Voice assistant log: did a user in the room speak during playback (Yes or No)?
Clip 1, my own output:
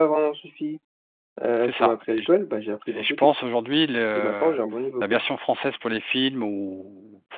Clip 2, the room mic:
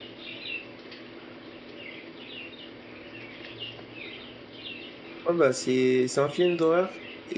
Yes